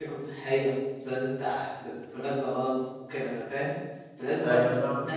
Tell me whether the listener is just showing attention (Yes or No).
Yes